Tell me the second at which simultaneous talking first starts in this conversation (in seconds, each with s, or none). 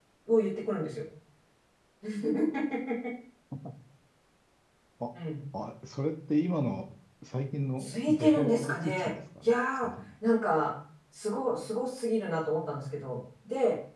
7.8 s